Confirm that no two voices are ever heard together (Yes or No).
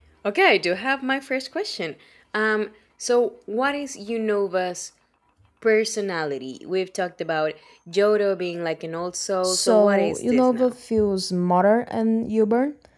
No